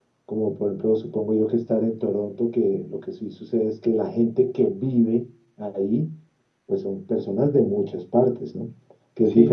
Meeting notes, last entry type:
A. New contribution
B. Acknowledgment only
A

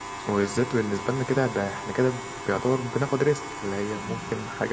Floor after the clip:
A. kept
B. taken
A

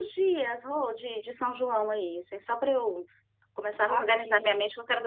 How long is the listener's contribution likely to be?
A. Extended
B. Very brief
B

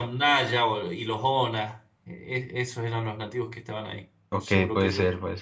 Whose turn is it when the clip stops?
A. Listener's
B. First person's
A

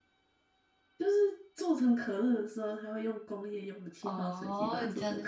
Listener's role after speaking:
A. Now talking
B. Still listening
A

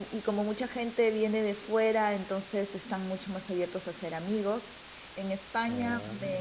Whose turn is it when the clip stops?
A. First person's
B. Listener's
A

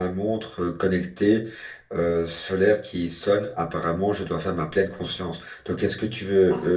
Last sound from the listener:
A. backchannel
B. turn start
A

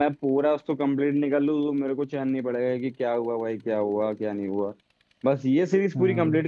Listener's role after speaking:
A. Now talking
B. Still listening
B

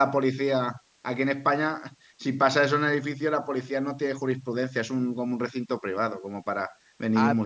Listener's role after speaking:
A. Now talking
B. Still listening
A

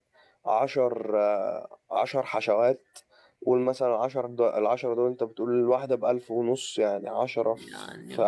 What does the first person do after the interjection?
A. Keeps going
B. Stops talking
A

